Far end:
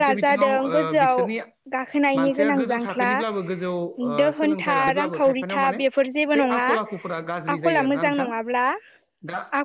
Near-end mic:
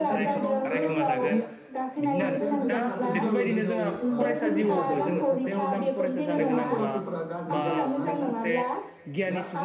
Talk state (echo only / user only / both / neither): both